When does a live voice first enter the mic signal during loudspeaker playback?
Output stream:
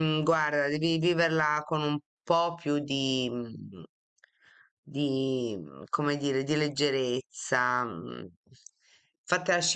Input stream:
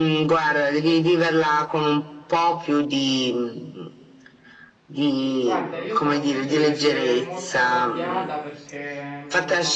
5 s

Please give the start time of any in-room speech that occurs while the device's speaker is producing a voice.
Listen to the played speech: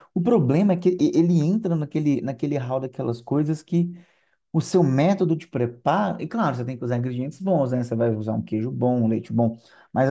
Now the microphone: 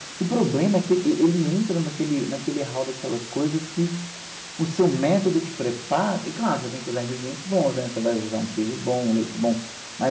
none

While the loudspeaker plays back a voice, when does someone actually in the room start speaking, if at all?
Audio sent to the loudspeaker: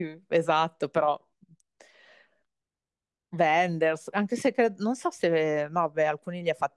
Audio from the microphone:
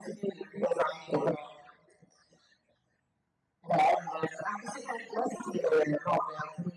none

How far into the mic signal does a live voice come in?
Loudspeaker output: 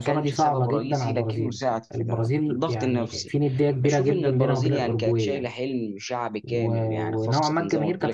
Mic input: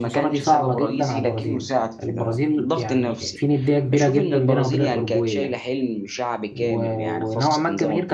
none

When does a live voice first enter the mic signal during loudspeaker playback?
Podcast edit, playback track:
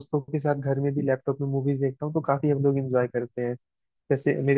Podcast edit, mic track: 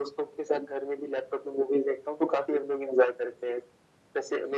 none

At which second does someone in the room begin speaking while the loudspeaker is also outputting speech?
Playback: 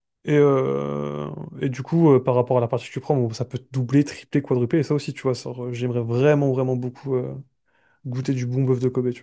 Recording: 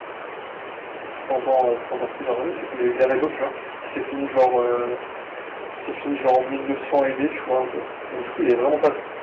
1 s

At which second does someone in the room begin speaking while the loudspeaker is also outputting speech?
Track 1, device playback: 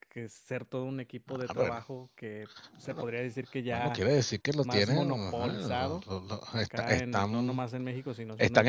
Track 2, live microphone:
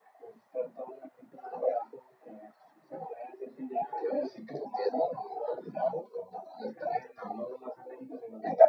none

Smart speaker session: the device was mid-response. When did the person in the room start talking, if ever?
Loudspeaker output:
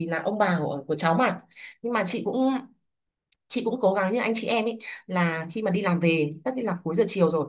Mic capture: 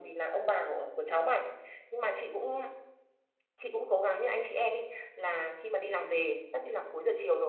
none

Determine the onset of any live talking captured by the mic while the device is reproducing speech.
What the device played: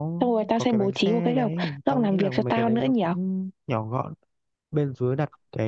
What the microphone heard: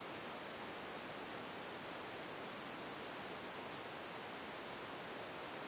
none

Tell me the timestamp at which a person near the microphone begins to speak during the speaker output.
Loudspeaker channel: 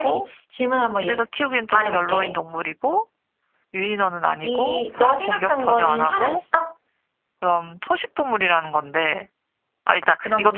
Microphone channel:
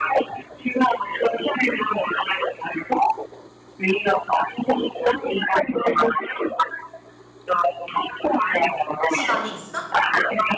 9 s

